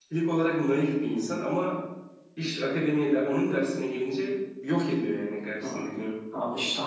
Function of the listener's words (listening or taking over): taking over